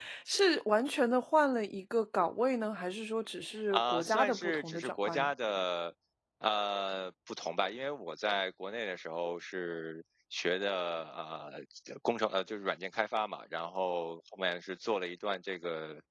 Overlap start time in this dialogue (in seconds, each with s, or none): 3.7 s